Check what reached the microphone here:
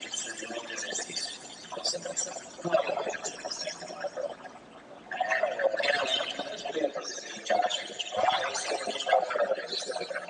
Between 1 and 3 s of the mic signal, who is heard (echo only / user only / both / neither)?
echo only